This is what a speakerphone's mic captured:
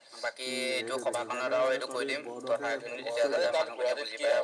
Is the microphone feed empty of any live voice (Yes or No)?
No